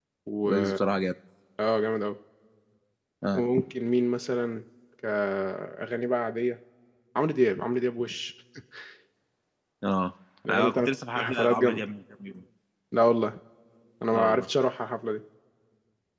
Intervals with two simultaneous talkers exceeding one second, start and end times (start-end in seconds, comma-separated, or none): 10.5-11.8